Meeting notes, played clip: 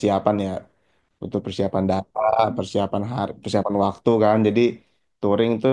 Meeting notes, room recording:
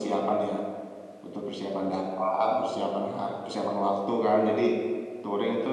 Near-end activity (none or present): none